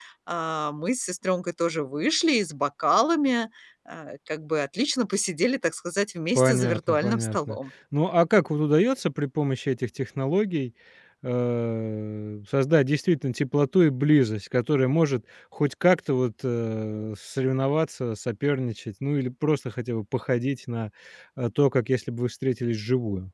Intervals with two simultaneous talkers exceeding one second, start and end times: 6.4-7.6

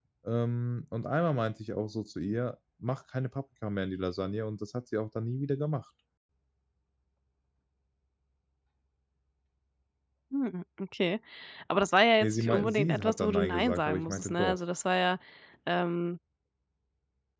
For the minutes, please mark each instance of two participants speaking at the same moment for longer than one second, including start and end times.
12.2-14.6

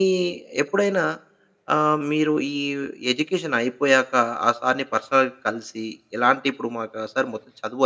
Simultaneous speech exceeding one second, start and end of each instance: none

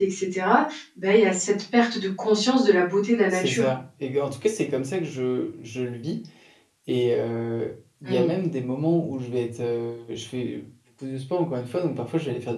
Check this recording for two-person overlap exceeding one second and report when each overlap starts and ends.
none

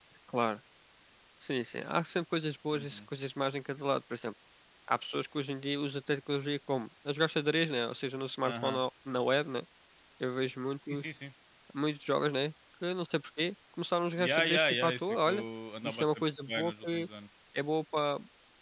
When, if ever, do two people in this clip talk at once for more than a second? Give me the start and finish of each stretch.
14.2-15.4, 15.8-17.1

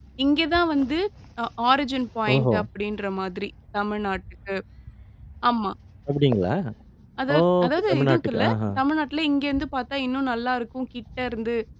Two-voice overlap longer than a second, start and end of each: 7.4-8.7

